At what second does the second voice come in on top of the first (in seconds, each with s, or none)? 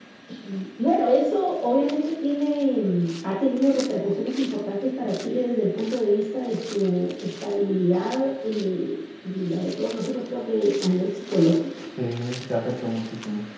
none